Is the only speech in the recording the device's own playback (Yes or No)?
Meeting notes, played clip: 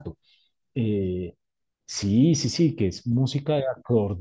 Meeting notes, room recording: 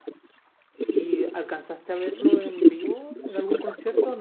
No